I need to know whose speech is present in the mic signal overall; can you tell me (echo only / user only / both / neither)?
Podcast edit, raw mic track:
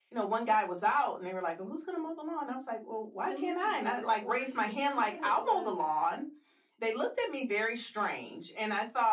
both